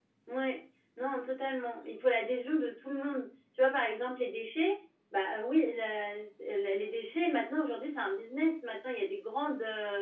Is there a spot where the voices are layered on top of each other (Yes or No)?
No